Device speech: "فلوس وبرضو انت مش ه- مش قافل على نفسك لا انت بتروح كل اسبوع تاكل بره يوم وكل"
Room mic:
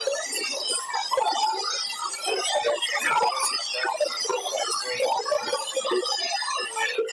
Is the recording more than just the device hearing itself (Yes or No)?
No